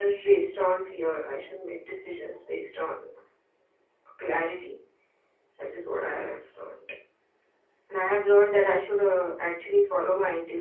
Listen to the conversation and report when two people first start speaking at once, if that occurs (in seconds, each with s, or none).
none